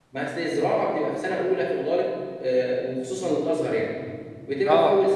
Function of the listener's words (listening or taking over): listening